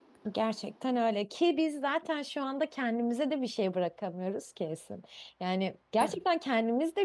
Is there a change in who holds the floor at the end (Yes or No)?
No